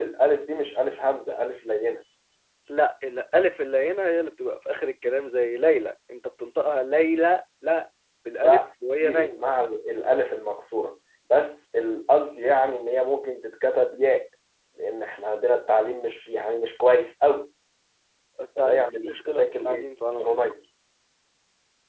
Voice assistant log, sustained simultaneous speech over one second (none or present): present